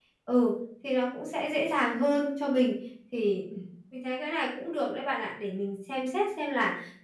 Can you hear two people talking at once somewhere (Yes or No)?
No